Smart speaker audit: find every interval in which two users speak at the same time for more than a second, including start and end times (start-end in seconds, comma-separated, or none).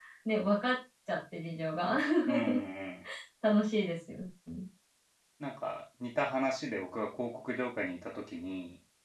none